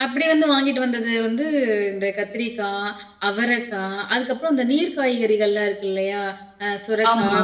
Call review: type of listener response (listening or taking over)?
listening